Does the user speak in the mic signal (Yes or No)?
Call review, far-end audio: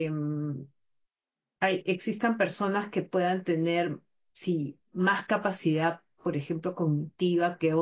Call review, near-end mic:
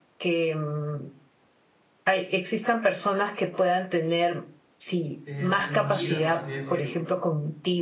Yes